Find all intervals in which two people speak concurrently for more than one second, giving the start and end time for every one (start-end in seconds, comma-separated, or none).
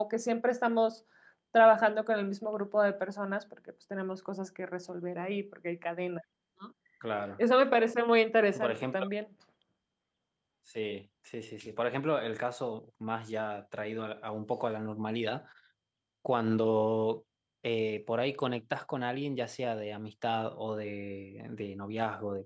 none